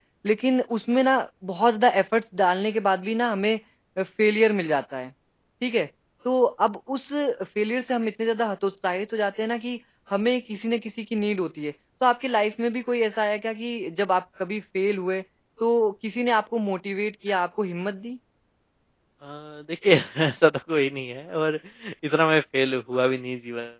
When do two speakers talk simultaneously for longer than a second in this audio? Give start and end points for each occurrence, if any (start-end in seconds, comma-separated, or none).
none